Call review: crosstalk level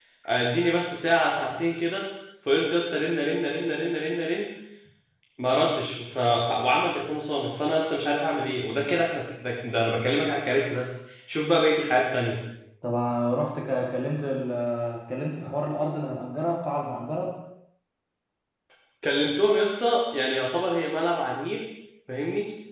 none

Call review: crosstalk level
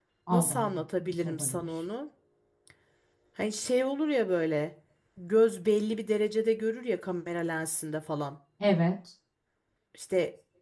present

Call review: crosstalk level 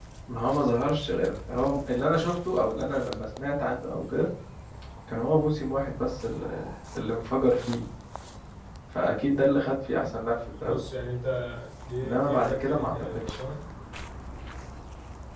present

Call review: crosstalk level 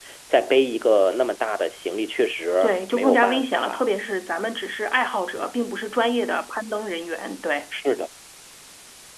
present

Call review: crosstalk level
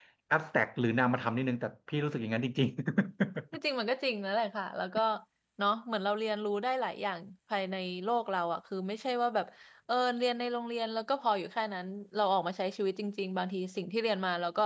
none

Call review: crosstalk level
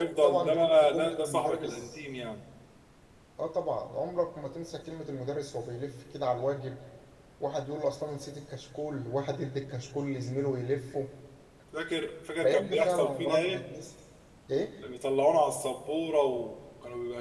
present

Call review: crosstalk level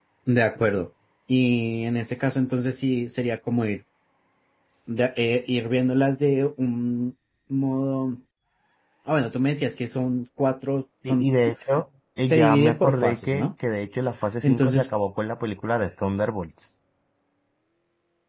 present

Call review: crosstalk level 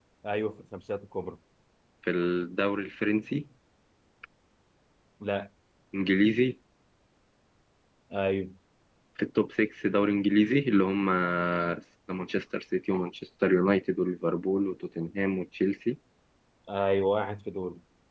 none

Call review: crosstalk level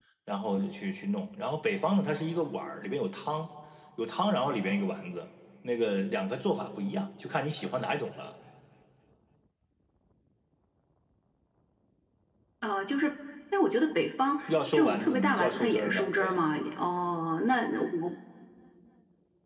present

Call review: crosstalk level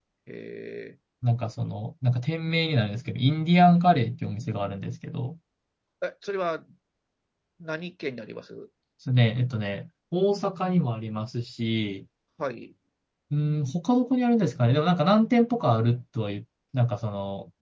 none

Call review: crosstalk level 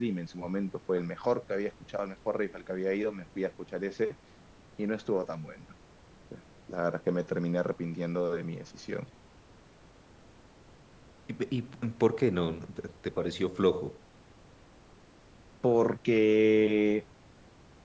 none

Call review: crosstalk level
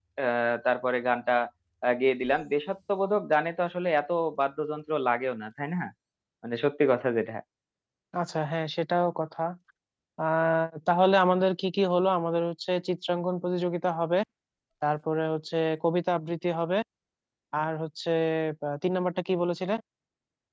none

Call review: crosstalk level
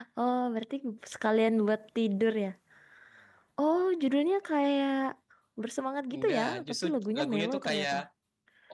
present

